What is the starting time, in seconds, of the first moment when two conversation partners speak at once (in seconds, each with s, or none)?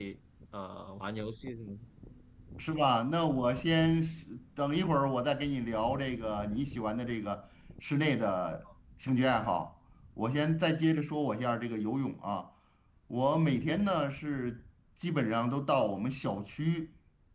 none